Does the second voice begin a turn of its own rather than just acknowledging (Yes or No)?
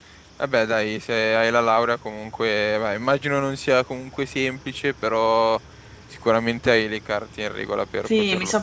Yes